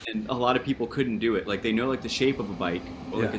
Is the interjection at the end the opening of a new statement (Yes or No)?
No